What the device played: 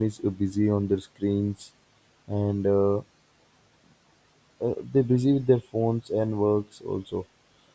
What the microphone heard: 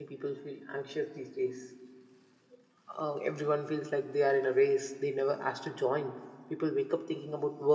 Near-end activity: present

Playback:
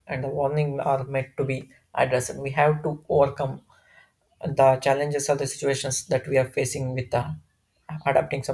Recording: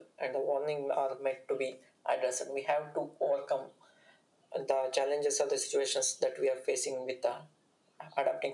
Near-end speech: none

